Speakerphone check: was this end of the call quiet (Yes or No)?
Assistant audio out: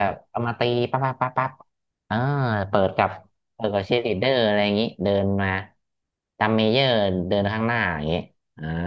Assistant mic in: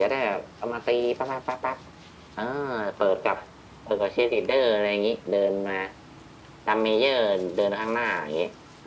Yes